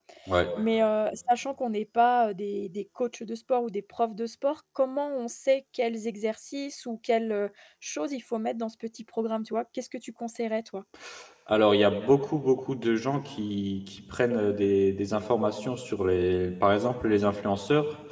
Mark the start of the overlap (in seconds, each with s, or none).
none